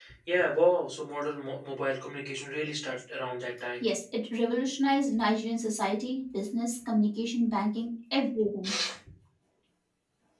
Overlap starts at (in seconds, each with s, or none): none